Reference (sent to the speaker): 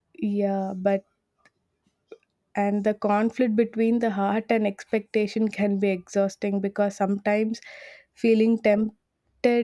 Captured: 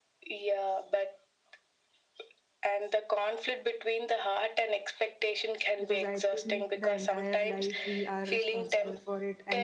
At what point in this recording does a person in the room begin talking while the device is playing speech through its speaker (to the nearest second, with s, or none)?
6 s